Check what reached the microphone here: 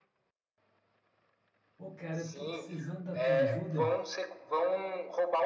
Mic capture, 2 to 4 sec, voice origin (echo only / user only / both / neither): both